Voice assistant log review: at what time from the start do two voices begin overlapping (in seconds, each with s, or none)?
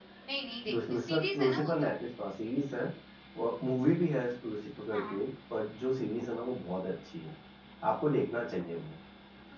0.7 s